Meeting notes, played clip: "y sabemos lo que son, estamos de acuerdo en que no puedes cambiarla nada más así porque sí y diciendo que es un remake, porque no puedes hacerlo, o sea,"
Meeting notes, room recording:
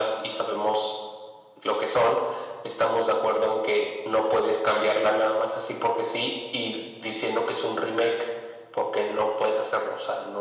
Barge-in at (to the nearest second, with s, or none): none